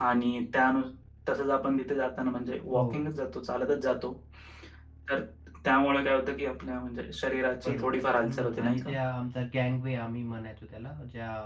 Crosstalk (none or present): present